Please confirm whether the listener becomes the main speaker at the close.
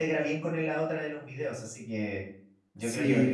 Yes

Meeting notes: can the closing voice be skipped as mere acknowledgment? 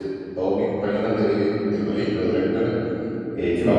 Yes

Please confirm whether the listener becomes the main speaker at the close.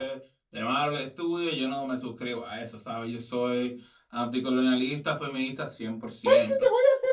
Yes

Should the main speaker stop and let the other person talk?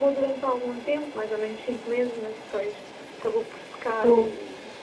No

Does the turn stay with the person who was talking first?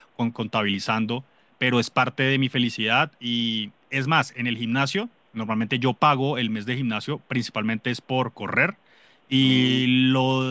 Yes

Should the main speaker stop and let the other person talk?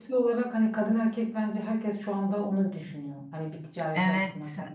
Yes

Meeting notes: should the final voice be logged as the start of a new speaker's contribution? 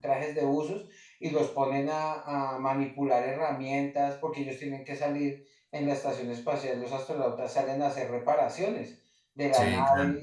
No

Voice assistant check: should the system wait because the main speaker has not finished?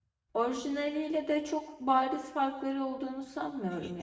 No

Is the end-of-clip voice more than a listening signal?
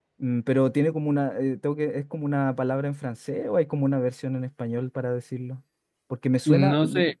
Yes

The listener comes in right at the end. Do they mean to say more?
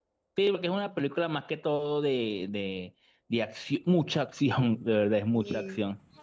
No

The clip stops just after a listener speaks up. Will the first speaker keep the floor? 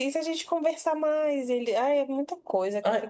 No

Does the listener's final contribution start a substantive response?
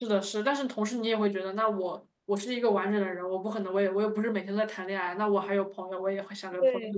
Yes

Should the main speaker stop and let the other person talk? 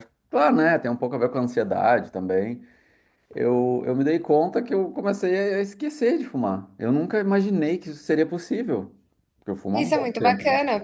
Yes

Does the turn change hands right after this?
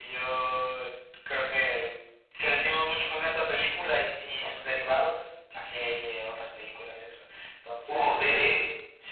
No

